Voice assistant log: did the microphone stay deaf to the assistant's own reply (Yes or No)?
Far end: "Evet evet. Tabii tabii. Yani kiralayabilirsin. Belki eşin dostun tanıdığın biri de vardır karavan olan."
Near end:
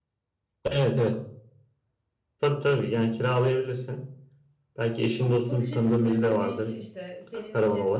No